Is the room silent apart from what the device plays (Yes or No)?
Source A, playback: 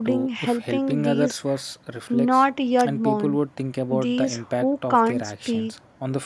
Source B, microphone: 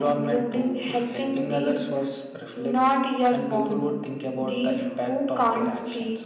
Yes